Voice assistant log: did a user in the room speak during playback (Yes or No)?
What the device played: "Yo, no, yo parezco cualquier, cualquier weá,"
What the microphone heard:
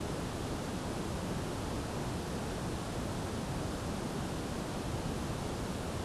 No